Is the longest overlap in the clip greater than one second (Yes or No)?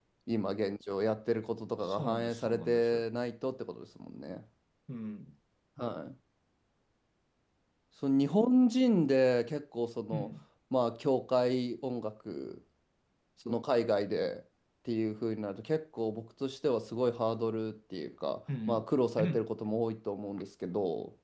Yes